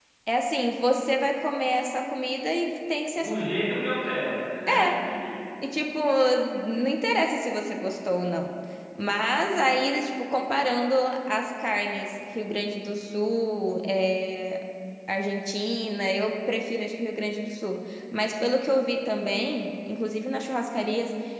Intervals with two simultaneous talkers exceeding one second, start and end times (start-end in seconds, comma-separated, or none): none